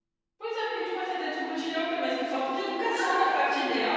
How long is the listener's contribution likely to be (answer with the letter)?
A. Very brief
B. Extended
A